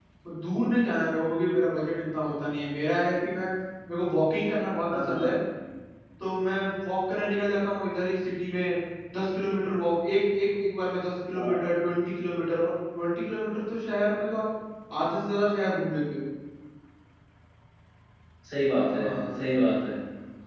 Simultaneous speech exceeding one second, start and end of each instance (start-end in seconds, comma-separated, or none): none